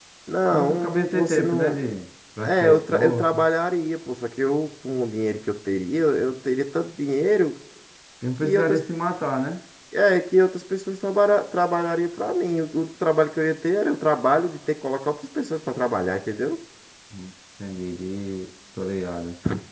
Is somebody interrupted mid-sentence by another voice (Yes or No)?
Yes